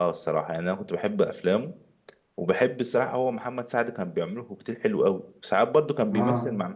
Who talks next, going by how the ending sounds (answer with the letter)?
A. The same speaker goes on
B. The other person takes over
A